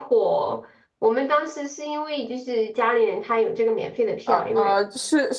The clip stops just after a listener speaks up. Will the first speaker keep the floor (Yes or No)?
No